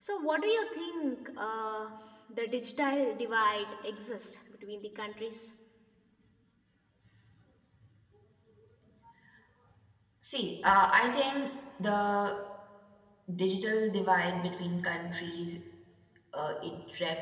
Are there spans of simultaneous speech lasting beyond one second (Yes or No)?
No